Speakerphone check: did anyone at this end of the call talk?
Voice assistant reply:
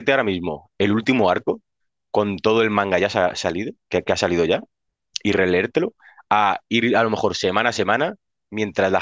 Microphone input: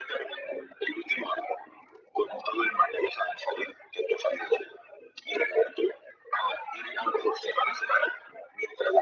No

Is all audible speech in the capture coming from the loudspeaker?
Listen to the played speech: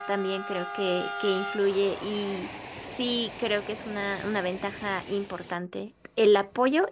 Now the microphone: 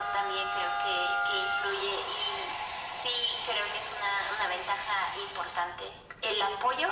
Yes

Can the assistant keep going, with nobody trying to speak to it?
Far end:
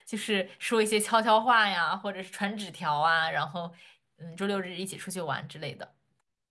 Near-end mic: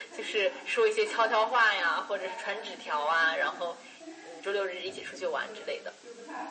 No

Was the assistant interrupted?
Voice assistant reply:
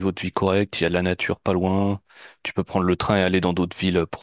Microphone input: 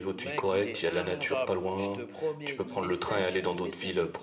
Yes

